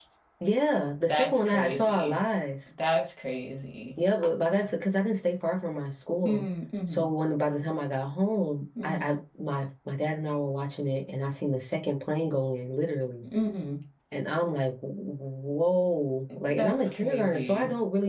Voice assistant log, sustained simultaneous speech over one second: present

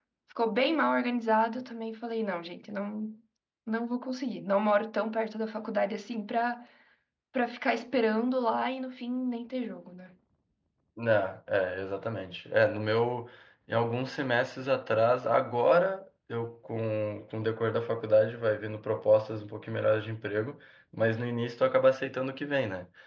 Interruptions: none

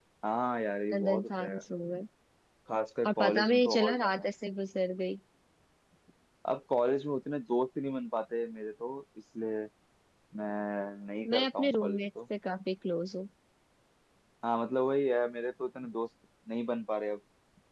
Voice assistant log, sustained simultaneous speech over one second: present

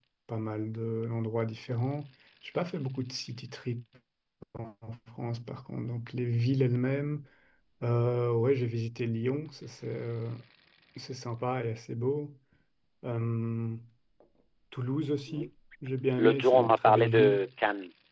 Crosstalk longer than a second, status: present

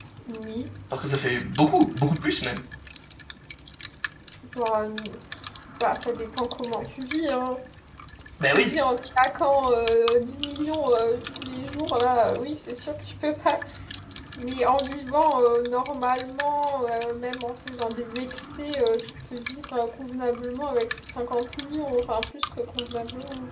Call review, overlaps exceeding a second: none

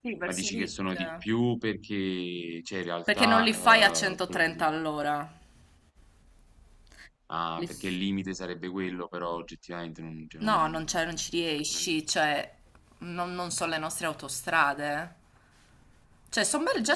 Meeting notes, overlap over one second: present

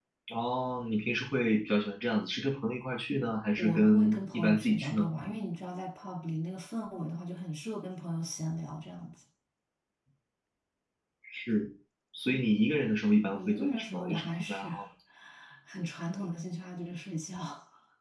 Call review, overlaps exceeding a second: present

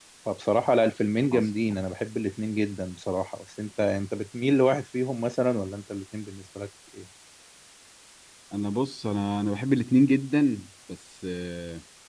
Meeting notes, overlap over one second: none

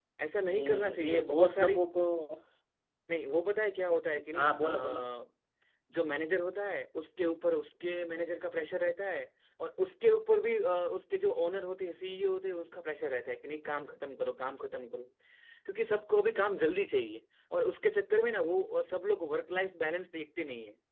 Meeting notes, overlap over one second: present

